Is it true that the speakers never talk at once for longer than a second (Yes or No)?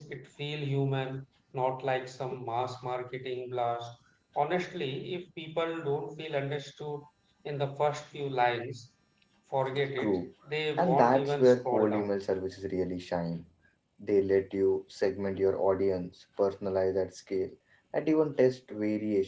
No